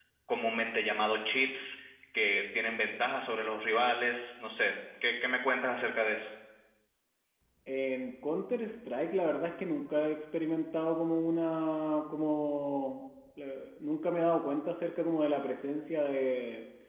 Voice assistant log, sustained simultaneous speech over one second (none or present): none